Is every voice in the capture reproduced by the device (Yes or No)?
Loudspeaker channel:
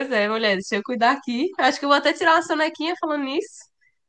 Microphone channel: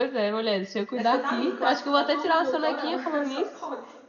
No